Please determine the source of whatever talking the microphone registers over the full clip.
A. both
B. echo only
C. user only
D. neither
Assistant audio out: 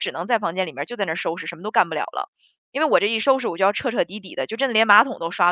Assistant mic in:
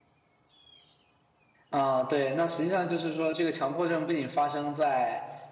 C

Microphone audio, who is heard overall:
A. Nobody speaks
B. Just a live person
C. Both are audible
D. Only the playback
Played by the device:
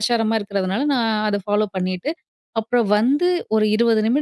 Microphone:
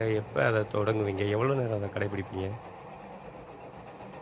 B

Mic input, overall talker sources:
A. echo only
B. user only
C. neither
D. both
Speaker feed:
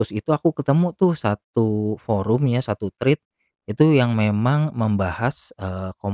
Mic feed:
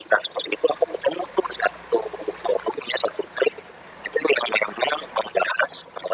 A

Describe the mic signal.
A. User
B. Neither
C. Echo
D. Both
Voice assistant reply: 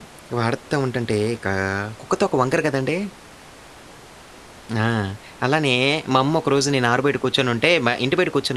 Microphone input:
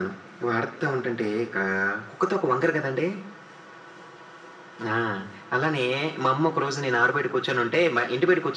C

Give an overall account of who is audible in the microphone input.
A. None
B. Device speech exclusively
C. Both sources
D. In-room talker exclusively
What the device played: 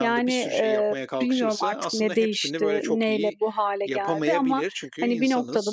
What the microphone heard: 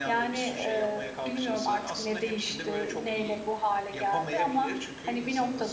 B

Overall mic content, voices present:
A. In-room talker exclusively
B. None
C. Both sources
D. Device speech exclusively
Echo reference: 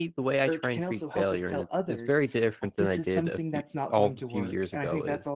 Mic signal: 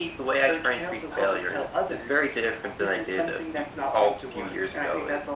D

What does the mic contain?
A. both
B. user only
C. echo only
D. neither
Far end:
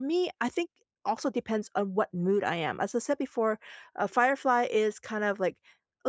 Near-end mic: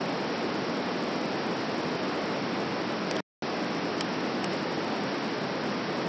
D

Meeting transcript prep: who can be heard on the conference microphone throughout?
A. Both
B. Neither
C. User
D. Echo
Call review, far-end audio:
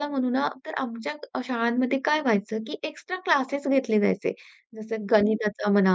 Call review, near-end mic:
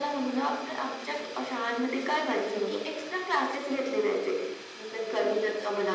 A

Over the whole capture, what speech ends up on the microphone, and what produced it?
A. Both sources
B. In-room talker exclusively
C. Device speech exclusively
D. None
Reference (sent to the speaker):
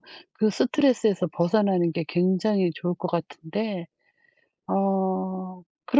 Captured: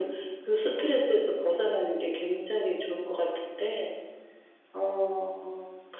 C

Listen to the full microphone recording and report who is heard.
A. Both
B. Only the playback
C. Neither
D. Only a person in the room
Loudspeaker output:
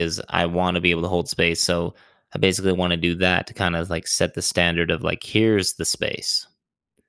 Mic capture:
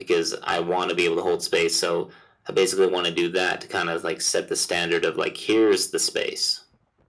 B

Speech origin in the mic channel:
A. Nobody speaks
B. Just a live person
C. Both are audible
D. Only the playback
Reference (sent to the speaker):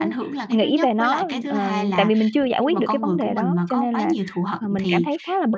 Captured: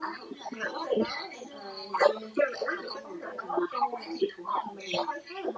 D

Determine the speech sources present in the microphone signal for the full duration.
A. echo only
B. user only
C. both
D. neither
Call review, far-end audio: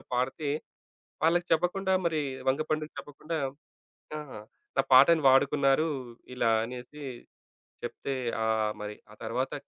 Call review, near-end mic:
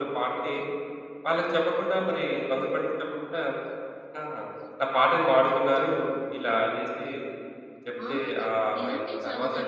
C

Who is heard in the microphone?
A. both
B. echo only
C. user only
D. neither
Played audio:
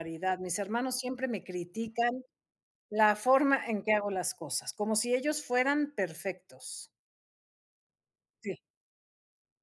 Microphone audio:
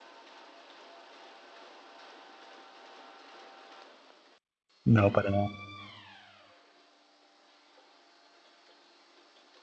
C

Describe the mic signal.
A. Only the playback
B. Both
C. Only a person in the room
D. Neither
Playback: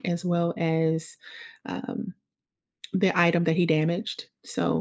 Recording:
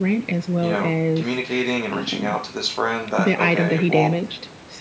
B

